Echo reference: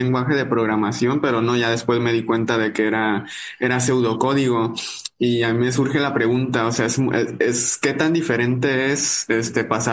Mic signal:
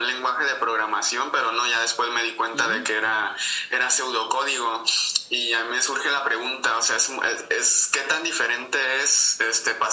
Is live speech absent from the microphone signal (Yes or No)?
No